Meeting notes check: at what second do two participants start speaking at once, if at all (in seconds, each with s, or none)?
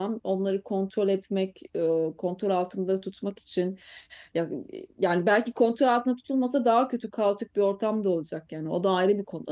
none